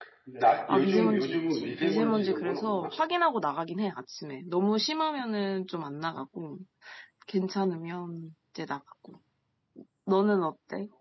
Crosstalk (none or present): present